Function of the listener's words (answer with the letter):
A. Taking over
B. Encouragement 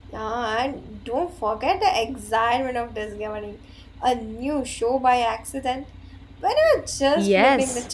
A